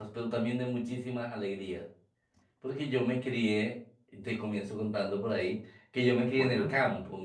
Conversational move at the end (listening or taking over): listening